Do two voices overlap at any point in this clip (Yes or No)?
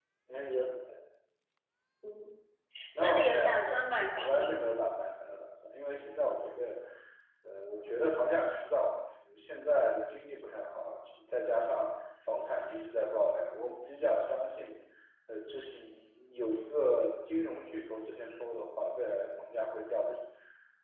Yes